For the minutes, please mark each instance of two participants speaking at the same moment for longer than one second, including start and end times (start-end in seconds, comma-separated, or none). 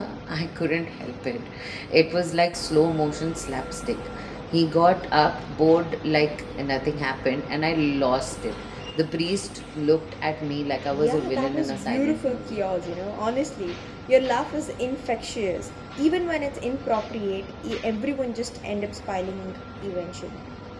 10.9-12.6